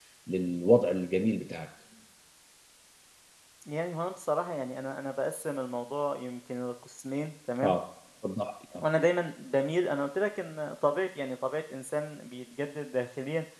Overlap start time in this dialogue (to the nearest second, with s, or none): none